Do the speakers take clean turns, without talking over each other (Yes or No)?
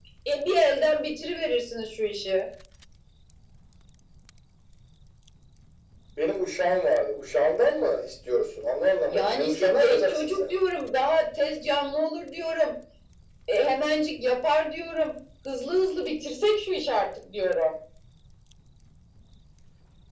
No